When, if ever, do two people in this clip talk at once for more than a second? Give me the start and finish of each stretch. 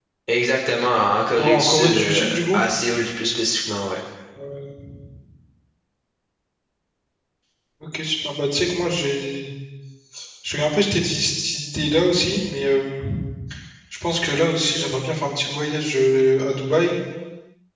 1.4-2.6

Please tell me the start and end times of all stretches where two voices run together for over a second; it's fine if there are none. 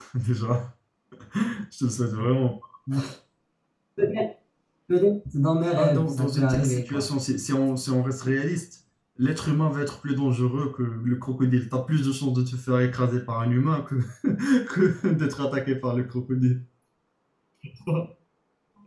5.8-7.1

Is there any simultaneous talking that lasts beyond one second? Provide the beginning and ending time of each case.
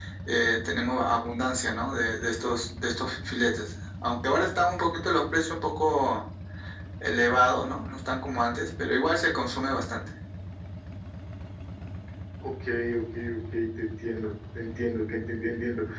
none

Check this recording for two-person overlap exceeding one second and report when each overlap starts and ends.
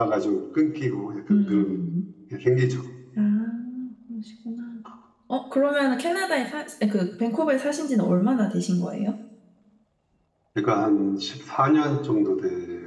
none

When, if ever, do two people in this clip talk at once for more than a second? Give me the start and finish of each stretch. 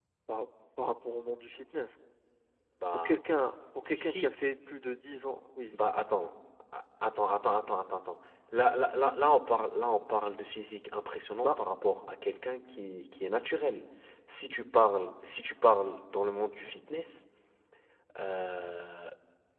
none

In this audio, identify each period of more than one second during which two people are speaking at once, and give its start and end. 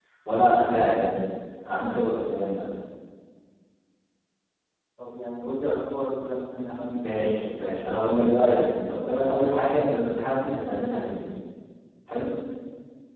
7.0-8.4

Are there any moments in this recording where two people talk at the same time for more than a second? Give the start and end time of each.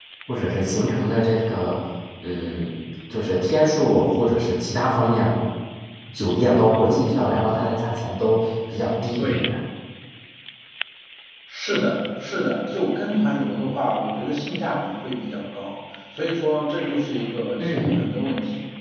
none

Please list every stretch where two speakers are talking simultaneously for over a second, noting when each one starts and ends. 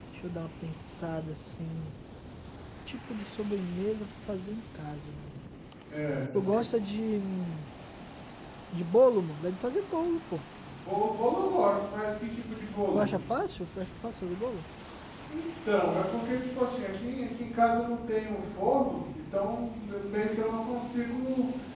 none

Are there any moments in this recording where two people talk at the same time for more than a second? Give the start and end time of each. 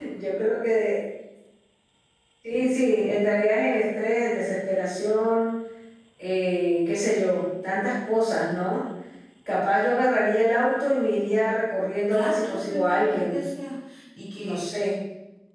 12.1-13.4

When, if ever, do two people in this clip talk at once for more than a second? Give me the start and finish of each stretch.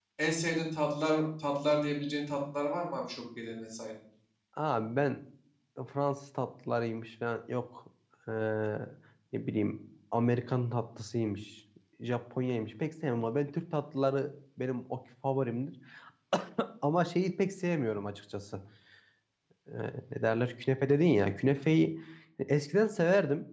none

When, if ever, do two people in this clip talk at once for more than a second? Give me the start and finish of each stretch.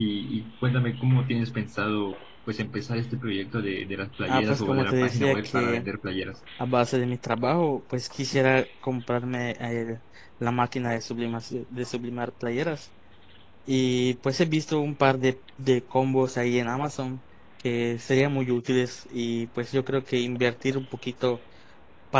4.3-5.8

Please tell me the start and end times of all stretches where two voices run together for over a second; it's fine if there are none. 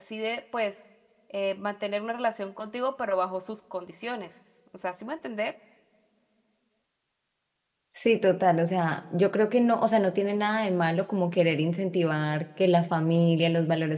none

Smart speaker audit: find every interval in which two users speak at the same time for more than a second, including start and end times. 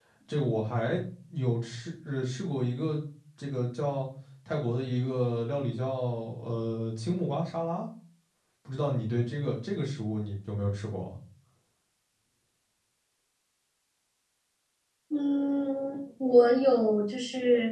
none

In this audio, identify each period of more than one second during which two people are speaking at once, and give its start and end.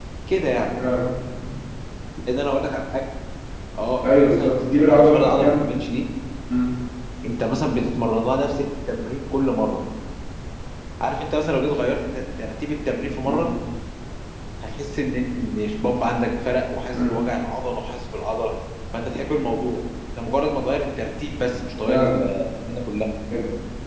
4.0-5.5

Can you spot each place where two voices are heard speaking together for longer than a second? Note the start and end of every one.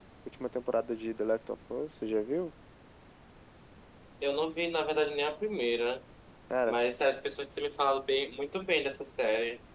none

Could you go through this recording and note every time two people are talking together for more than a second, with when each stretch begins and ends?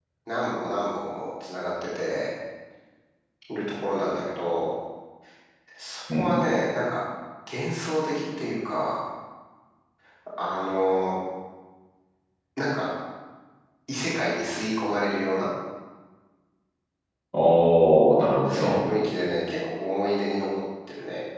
none

